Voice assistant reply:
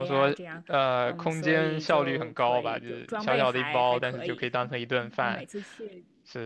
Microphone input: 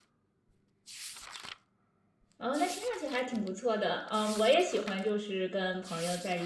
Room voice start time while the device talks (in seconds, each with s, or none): 2.4 s